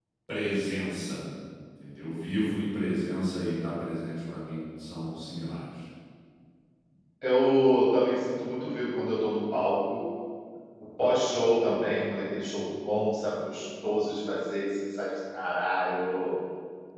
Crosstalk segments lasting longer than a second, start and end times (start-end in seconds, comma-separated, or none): none